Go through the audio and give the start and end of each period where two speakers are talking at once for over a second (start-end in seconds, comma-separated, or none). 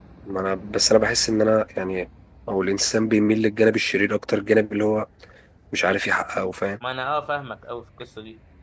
none